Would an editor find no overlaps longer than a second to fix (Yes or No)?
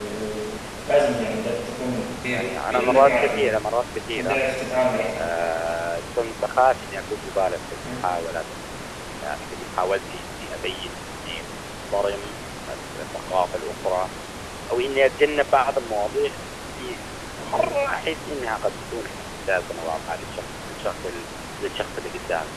No